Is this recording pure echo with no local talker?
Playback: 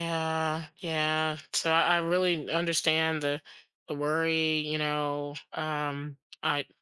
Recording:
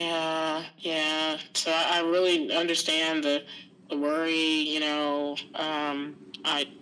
Yes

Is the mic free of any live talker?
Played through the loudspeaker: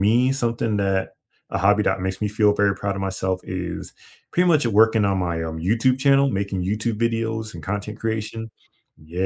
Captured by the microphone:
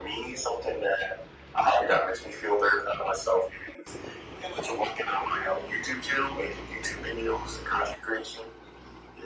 Yes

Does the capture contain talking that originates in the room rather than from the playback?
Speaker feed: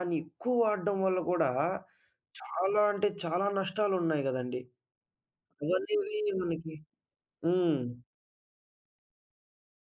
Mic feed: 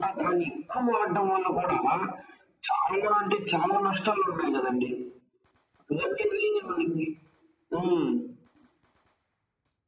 No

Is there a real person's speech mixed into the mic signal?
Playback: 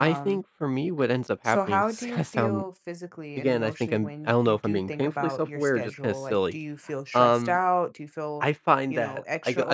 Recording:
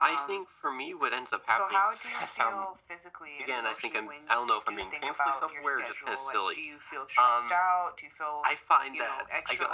No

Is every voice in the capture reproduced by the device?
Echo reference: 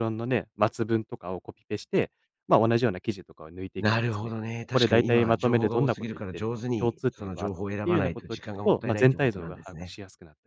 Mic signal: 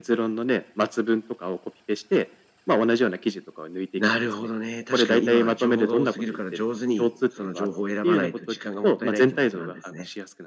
Yes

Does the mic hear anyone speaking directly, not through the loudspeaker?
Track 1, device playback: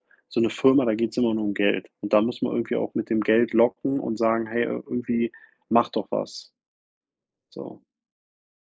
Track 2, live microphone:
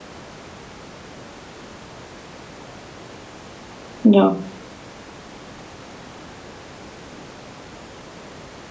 Yes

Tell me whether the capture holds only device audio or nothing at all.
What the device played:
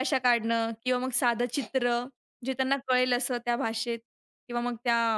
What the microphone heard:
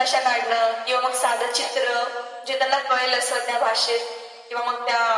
Yes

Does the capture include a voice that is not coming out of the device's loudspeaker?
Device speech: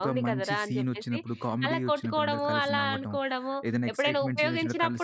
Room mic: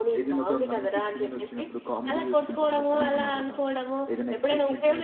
Yes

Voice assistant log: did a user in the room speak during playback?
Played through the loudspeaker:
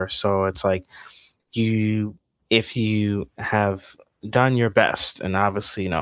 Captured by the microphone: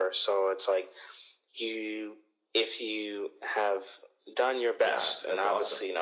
Yes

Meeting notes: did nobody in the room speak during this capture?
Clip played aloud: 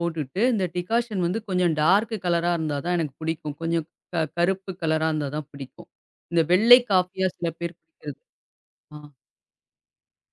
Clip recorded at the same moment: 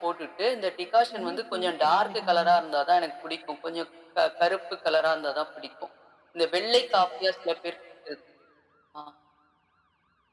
No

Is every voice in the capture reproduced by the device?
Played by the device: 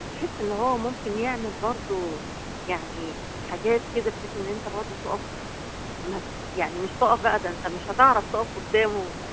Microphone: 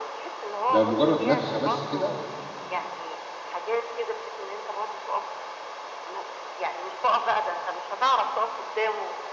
No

